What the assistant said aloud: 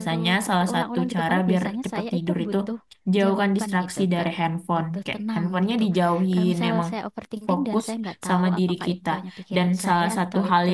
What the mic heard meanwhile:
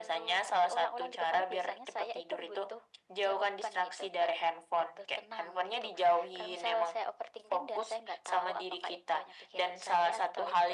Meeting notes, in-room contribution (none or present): none